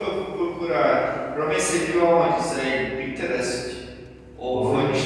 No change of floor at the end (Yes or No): No